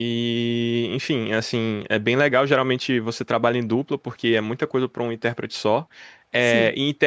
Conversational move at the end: listening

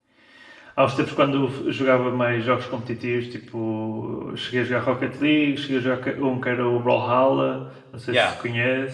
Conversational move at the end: taking over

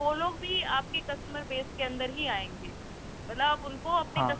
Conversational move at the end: listening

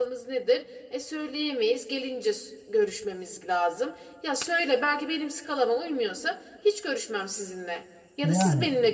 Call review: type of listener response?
listening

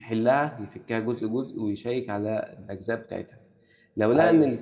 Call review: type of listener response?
listening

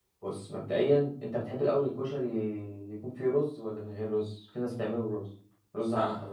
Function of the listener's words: taking over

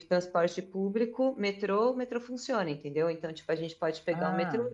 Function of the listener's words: listening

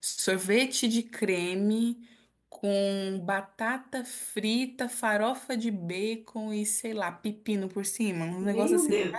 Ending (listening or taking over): taking over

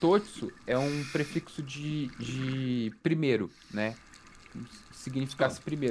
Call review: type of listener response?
listening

